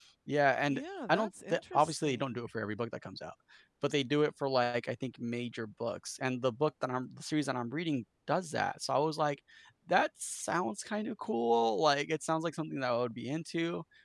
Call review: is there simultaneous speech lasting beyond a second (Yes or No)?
Yes